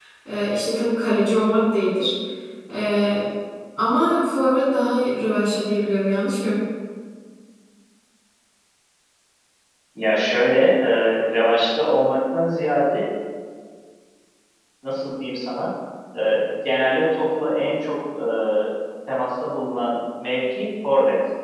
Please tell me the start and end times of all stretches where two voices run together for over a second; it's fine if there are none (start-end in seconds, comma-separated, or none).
none